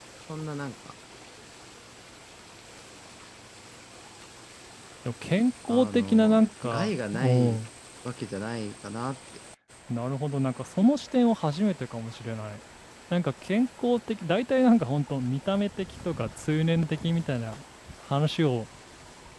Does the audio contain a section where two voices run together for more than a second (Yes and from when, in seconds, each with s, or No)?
Yes, from 5.7 s